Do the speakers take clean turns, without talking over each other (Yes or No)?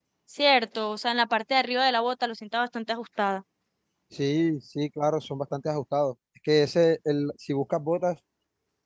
Yes